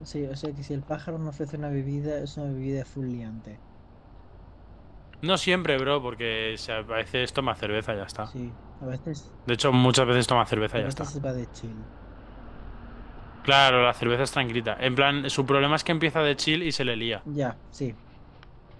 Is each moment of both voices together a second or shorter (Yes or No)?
Yes